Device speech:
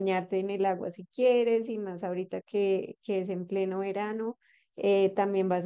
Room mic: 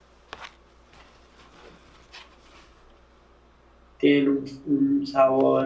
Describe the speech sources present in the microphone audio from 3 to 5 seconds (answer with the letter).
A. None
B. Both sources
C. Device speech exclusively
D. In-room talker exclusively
D